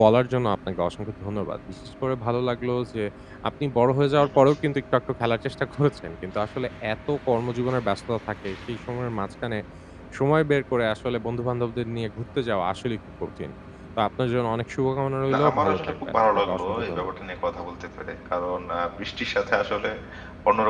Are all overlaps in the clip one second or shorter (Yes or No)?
No